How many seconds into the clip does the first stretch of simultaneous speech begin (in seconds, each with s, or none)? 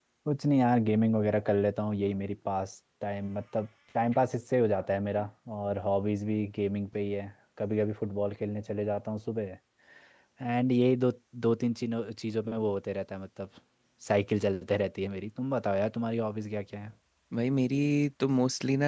none